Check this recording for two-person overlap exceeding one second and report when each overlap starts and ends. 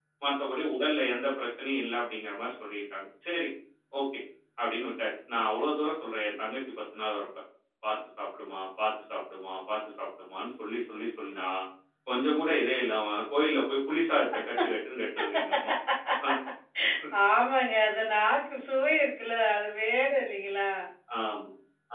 none

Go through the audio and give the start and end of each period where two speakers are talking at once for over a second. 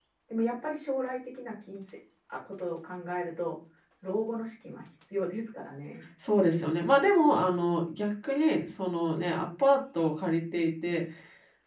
none

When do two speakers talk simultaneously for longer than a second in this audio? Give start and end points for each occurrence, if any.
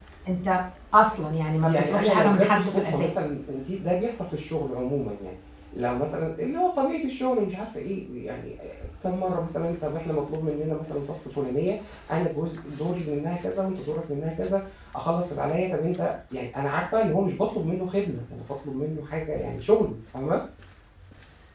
1.7-3.1

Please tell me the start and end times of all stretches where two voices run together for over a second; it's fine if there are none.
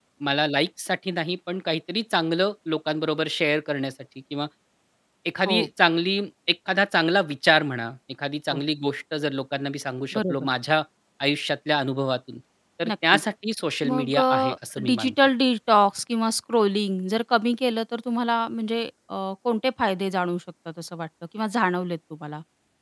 13.8-15.2

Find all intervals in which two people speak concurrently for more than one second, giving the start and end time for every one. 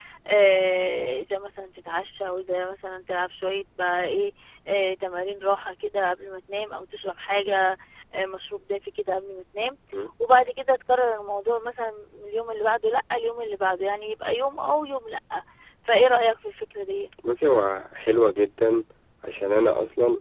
none

